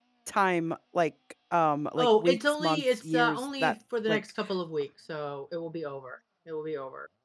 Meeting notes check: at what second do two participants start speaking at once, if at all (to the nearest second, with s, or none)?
2 s